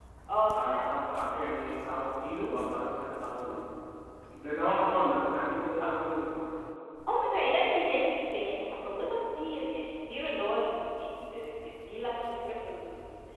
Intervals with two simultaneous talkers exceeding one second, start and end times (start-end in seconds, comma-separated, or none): none